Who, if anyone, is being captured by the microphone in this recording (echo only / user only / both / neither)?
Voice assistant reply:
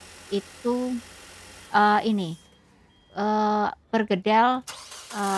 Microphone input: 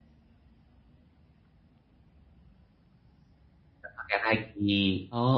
user only